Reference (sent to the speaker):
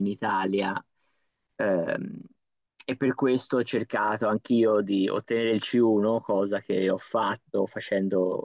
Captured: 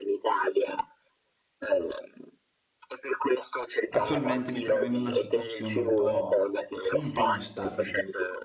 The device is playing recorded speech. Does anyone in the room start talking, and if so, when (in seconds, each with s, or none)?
3.9 s